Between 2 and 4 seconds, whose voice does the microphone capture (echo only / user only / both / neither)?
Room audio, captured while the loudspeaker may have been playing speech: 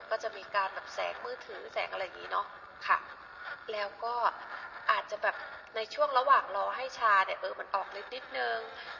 echo only